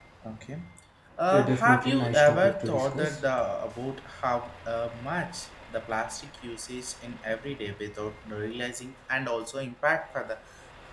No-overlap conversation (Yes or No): No